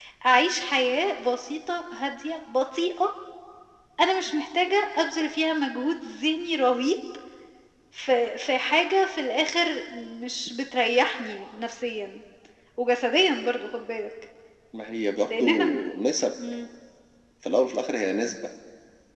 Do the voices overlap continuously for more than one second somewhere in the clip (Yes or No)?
No